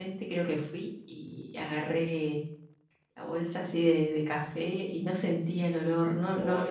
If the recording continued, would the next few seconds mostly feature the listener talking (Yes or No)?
Yes